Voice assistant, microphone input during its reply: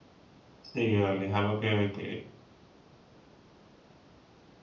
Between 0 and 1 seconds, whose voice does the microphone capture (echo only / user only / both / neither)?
user only